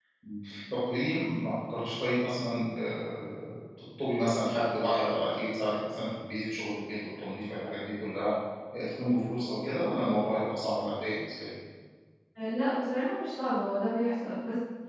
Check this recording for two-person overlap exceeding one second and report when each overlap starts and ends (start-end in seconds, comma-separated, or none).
none